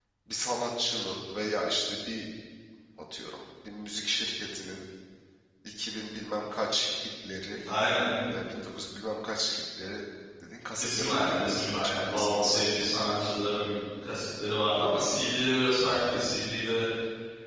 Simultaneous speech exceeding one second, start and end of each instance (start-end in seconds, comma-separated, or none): 10.8-12.6